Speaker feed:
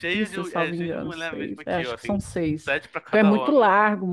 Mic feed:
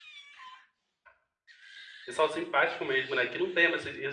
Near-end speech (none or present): present